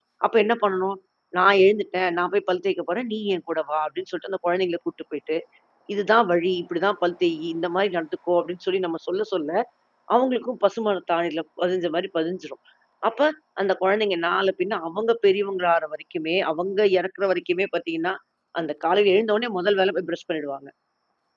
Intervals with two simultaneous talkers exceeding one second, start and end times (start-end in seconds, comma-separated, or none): none